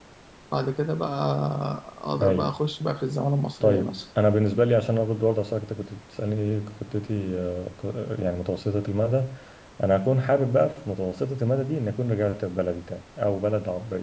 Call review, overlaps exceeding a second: none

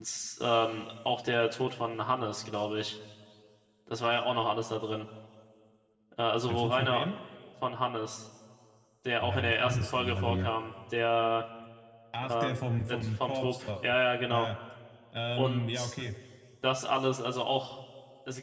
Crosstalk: present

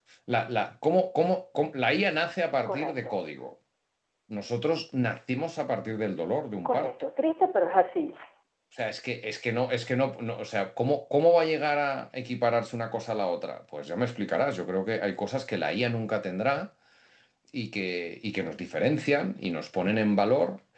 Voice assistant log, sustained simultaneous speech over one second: none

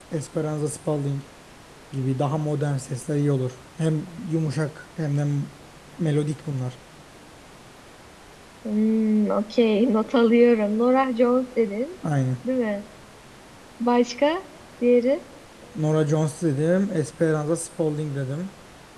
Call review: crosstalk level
none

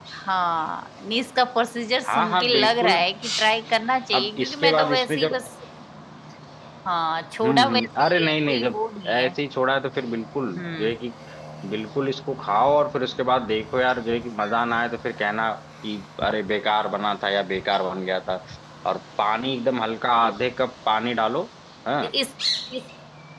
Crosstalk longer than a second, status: present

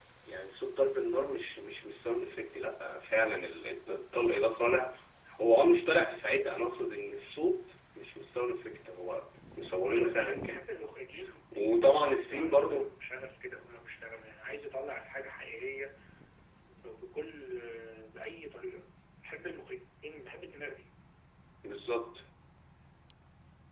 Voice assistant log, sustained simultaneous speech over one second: present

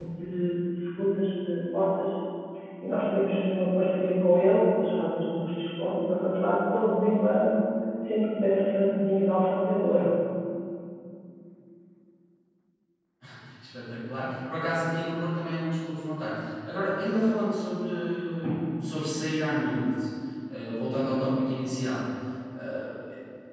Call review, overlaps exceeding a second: none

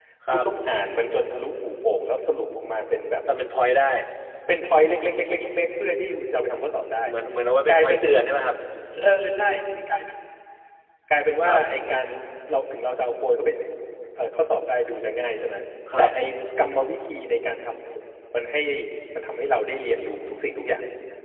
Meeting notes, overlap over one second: none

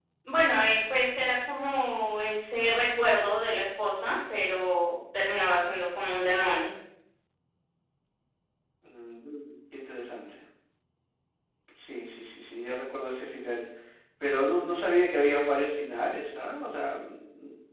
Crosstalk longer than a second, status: none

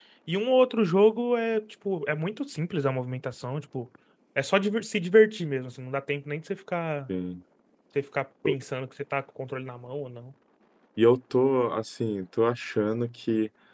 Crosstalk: none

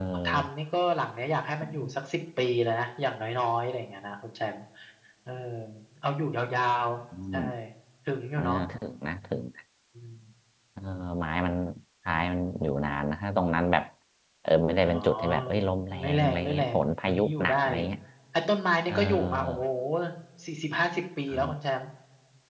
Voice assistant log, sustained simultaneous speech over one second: present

